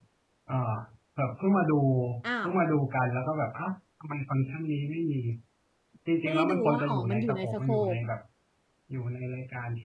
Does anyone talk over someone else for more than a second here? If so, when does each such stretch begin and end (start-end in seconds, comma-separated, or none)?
6.2-8.0